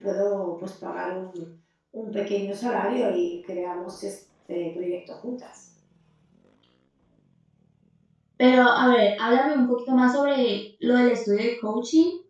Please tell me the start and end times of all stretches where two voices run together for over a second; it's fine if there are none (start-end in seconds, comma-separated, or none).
none